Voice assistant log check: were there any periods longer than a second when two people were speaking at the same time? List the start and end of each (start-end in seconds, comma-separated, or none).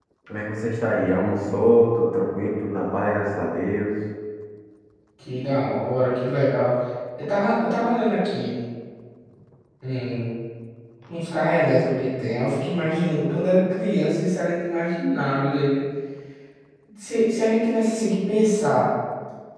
none